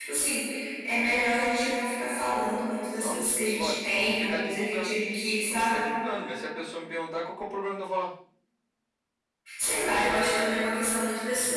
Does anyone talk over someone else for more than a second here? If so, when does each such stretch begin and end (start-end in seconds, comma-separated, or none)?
3.0-5.0